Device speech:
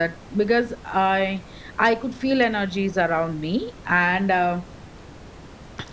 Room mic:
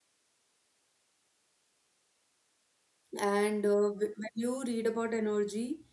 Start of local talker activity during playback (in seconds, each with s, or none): 3.2 s